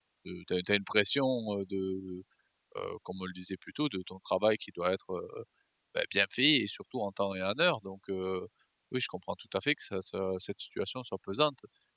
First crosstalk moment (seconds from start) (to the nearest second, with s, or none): none